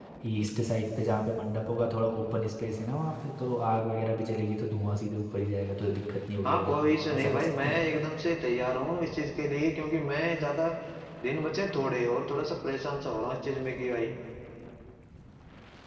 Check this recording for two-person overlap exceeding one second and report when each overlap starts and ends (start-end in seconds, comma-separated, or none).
6.5-7.8